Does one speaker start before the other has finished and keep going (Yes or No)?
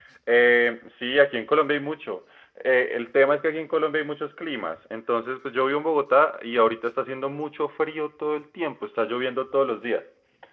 No